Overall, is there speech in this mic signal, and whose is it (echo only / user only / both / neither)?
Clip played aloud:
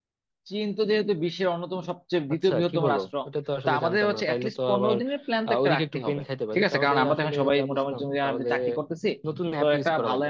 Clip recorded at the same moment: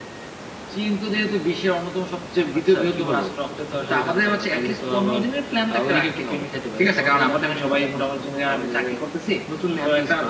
echo only